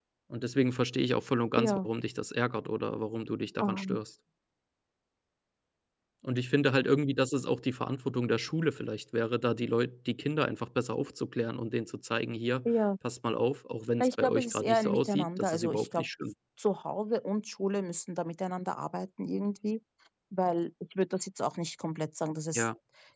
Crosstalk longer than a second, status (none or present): present